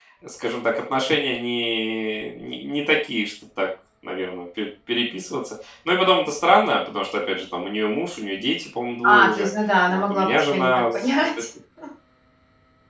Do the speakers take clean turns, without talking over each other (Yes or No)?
No